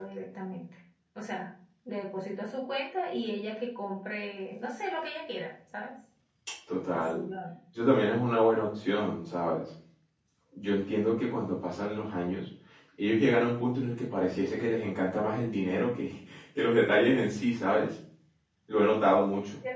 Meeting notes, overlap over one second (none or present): none